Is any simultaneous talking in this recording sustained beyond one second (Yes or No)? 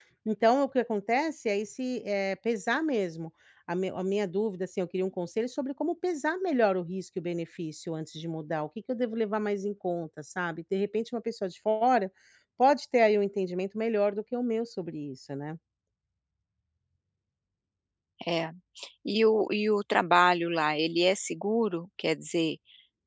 No